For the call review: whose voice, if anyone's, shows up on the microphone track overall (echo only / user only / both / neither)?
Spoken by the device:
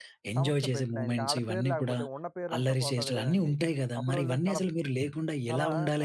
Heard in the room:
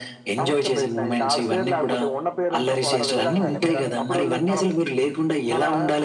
both